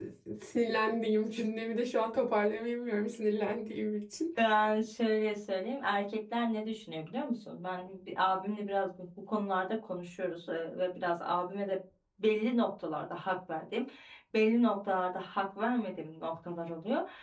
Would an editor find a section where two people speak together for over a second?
No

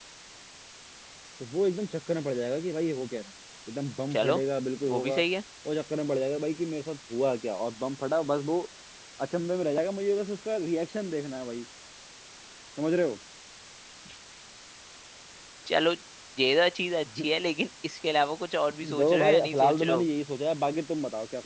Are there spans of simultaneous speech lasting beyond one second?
Yes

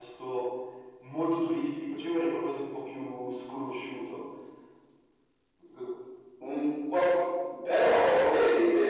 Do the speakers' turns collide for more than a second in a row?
No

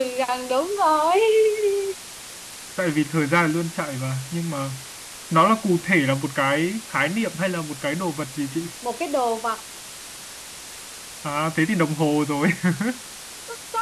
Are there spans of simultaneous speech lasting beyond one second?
No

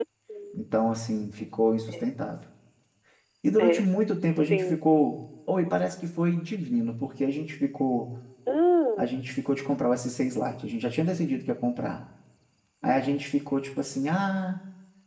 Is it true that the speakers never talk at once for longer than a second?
Yes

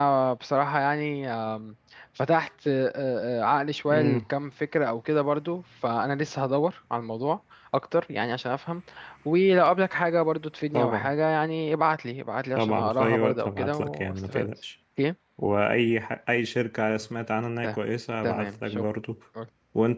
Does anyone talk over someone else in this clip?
Yes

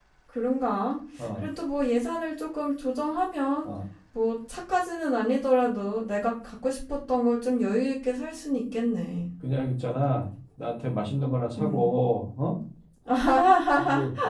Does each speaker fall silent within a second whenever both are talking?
Yes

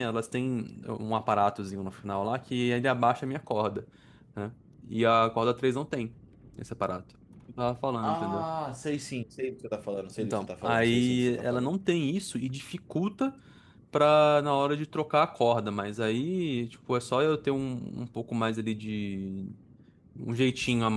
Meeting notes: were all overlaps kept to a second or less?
No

